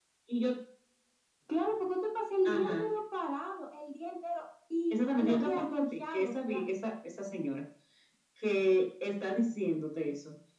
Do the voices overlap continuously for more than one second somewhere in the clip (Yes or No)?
Yes